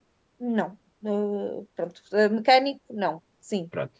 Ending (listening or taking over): taking over